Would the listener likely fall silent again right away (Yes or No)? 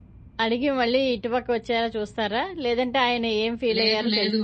No